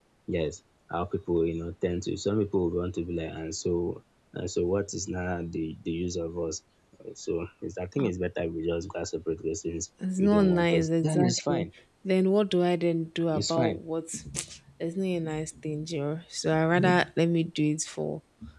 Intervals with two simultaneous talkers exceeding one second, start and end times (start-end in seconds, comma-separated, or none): 10.2-11.6